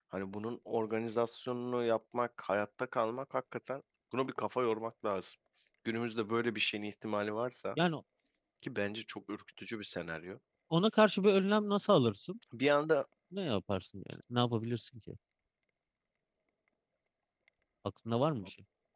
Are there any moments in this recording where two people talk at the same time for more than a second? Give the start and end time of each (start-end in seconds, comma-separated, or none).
none